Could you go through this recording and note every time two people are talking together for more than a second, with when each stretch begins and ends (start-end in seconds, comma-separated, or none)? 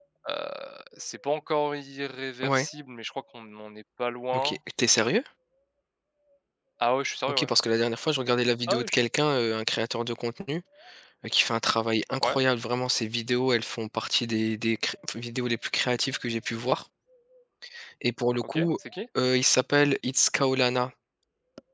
none